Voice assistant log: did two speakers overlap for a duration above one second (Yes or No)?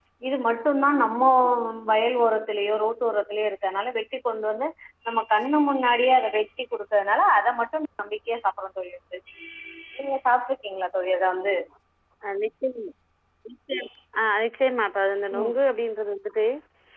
No